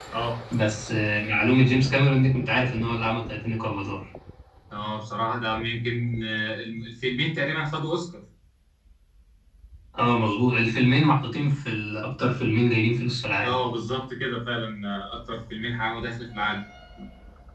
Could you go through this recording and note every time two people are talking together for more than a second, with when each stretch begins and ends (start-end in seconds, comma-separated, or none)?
none